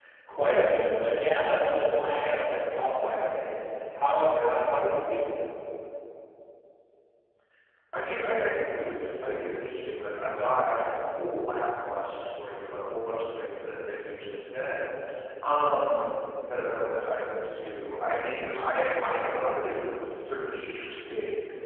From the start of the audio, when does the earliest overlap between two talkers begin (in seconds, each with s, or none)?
none